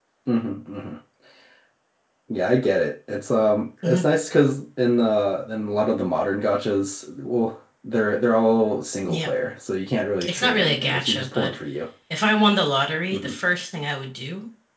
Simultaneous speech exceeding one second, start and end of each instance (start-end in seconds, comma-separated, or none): 10.2-11.5